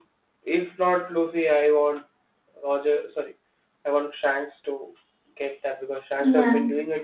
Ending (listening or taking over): listening